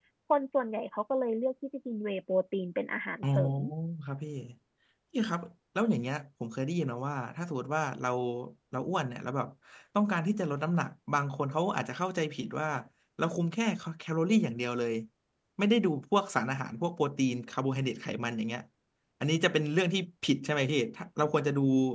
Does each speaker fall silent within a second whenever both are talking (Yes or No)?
Yes